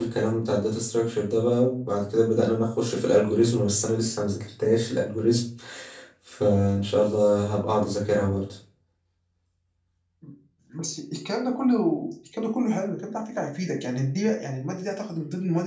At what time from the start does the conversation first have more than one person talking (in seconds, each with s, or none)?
none